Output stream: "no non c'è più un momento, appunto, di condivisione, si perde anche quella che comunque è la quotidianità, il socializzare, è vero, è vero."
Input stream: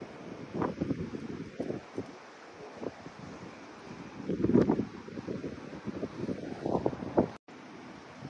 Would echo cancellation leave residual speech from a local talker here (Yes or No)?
No